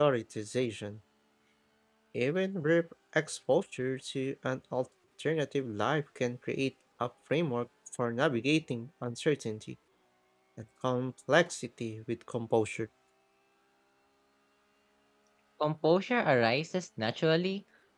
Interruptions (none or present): none